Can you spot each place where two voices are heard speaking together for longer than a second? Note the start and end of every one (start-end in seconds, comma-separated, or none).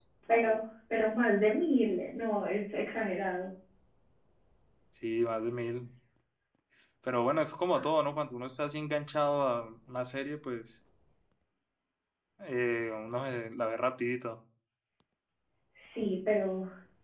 none